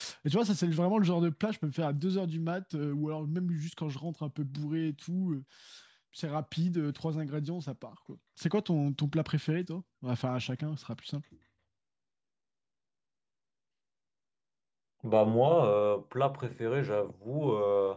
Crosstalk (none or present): none